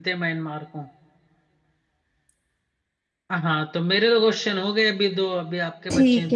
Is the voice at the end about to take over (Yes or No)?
Yes